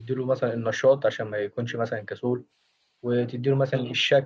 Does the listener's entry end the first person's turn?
No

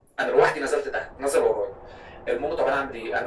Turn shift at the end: No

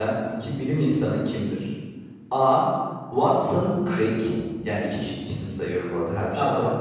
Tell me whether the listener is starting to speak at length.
No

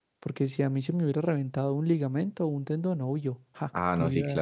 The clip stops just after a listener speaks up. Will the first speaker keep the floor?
No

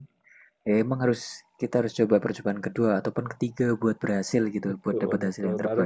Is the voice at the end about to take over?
Yes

